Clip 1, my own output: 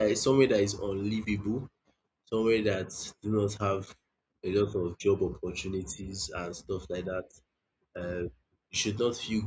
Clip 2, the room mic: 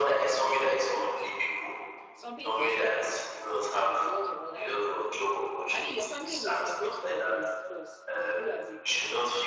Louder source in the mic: echo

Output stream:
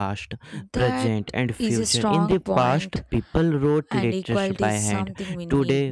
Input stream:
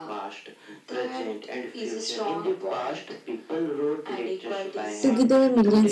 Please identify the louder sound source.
user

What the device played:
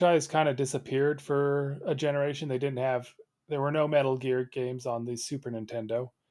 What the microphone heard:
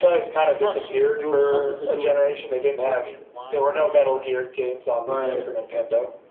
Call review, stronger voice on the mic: echo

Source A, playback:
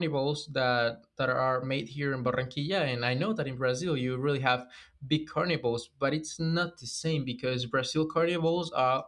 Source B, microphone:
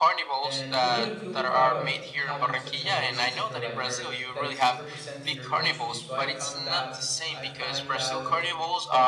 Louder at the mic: echo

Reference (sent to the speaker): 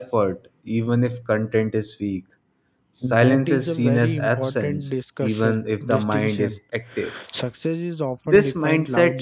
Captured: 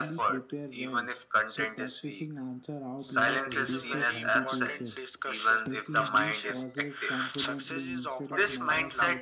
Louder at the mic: echo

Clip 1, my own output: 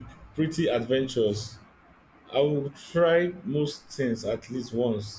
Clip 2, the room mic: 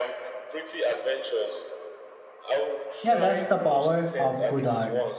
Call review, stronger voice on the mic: user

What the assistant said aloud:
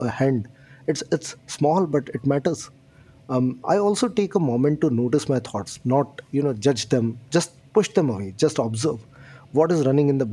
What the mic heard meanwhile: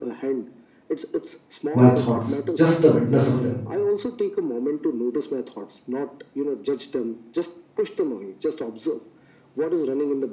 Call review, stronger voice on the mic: user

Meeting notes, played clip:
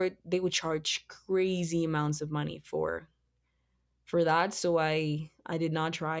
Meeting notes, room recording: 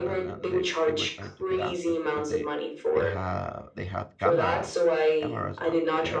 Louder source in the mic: echo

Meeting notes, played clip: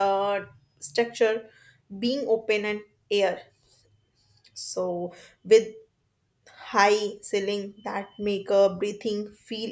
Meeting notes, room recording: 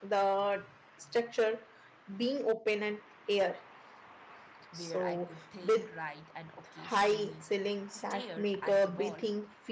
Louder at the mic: echo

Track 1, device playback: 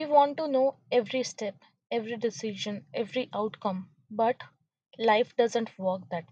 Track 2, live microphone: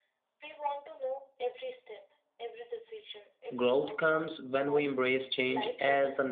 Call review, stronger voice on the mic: user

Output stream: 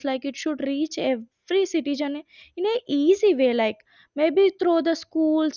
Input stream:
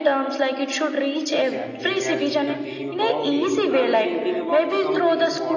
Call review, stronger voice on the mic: echo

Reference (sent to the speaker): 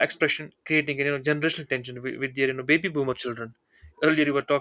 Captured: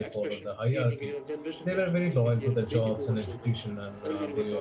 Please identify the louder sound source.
user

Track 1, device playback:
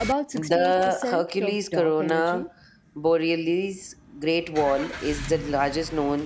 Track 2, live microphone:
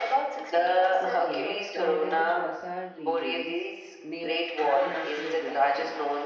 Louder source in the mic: echo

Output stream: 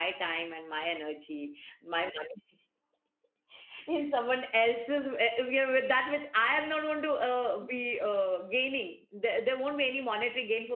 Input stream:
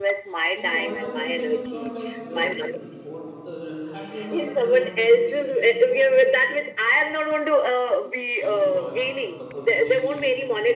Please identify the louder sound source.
echo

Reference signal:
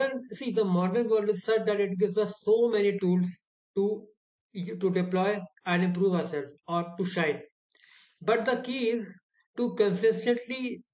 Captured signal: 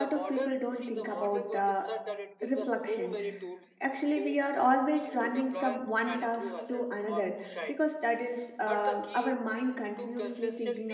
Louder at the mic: user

